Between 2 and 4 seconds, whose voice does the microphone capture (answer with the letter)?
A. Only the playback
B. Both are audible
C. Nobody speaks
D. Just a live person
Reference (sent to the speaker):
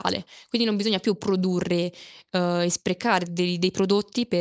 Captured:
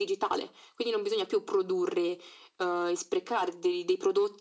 A